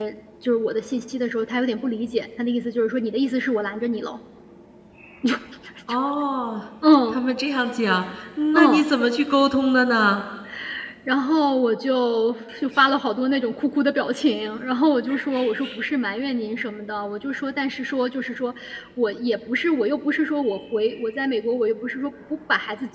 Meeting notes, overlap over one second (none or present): none